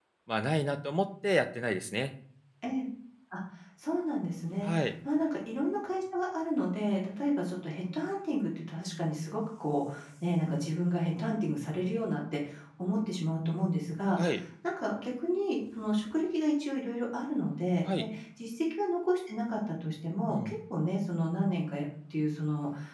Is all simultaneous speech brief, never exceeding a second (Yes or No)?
Yes